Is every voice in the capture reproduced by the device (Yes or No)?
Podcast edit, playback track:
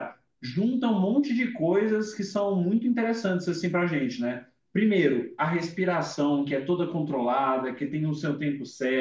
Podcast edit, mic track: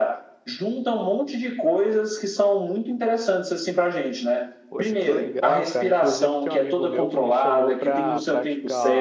No